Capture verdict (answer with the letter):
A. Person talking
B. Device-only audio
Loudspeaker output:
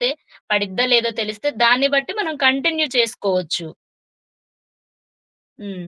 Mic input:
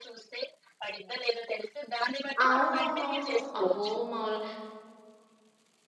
A